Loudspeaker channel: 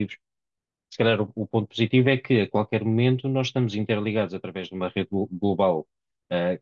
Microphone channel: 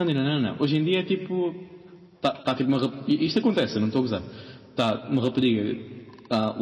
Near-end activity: present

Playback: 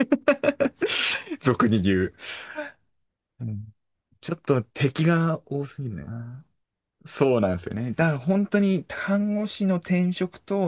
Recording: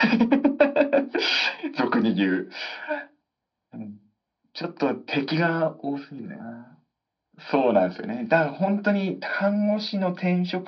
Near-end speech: none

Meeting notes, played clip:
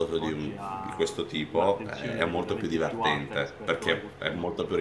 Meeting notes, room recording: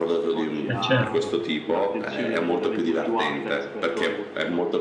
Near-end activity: present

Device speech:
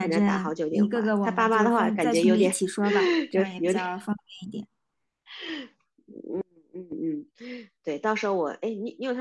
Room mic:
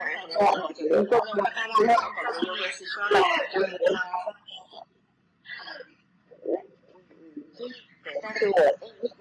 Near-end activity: none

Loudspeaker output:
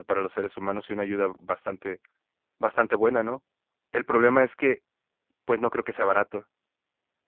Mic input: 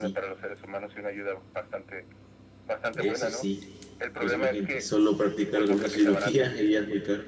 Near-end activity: present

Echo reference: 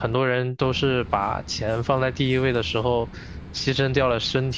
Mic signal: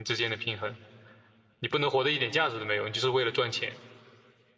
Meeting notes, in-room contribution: present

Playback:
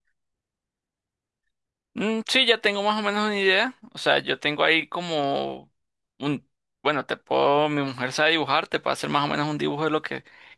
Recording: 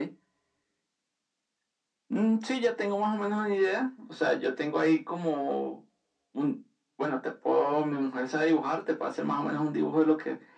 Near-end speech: none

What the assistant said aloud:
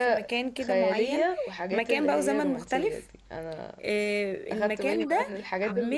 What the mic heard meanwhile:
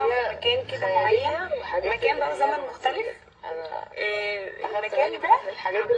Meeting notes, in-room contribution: none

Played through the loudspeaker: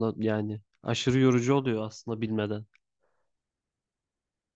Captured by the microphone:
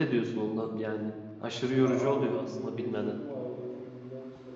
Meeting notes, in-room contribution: present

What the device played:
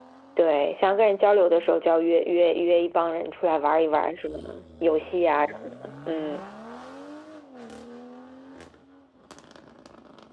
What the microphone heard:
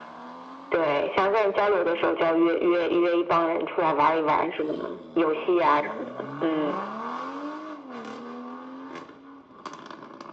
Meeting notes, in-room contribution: none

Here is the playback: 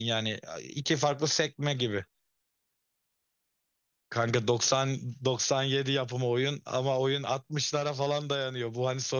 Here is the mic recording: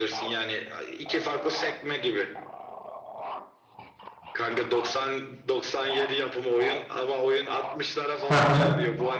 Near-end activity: present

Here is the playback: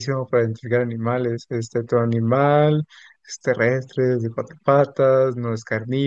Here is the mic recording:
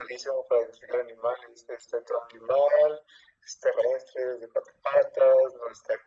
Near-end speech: none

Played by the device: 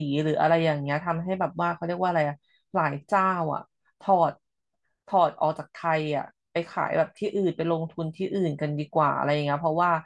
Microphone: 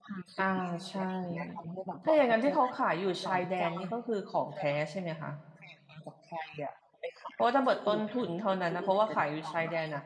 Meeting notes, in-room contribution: present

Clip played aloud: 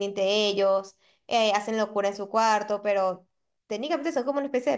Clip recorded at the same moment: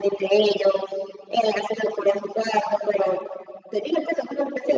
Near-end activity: none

